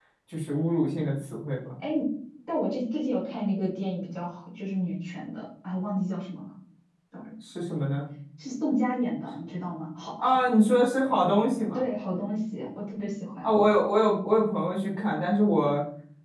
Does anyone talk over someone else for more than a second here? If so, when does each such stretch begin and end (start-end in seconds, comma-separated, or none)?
none